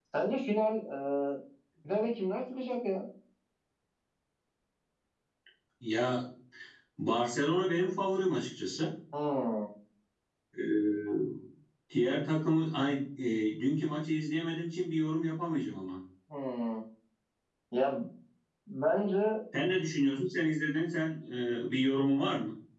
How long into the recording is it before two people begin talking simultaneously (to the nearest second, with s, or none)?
none